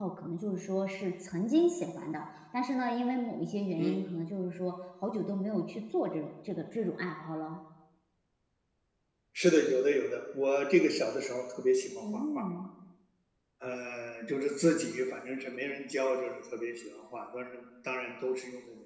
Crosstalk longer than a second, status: none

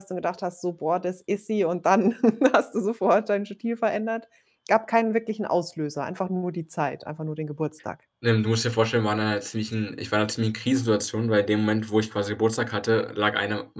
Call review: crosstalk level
none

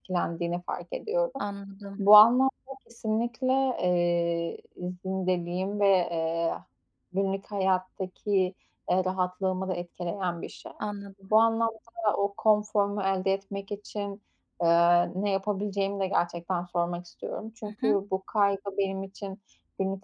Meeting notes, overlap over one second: none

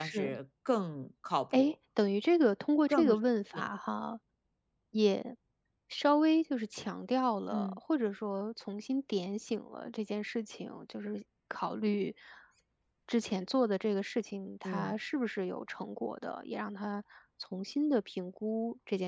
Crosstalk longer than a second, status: none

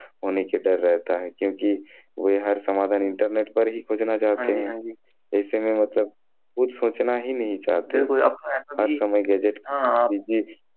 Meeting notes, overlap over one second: none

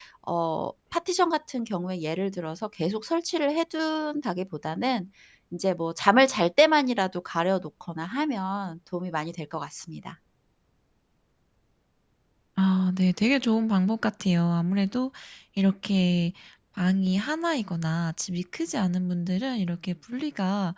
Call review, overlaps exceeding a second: none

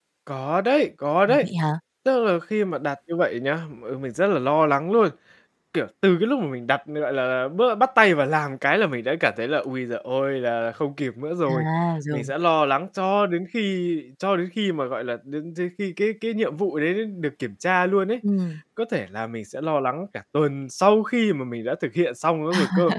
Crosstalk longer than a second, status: none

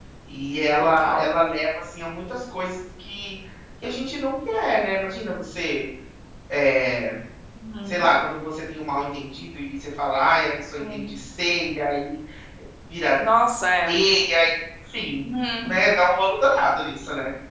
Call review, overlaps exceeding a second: none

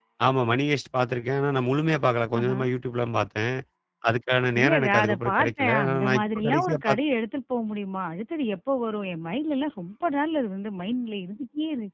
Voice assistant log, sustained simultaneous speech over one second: present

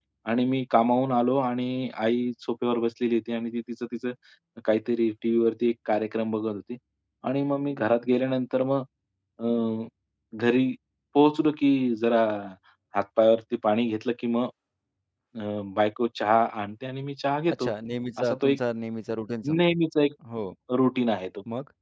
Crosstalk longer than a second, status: none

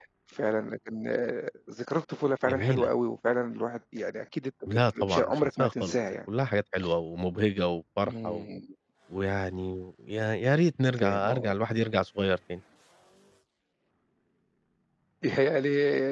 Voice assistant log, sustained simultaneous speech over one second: present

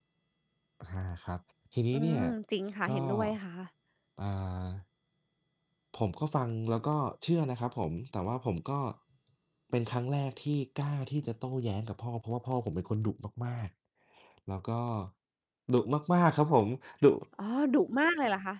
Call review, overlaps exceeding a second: none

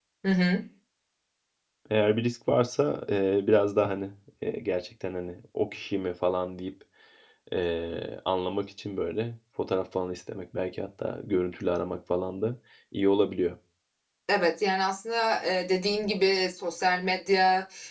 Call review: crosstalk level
none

